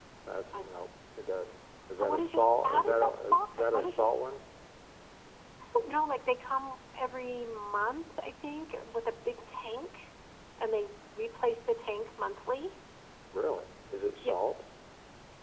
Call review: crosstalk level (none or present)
present